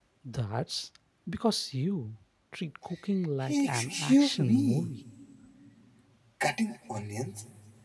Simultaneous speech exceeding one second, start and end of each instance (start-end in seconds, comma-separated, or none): 3.4-4.9